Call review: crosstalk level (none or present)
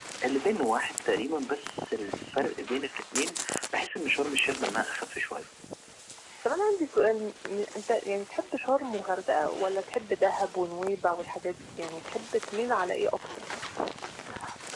none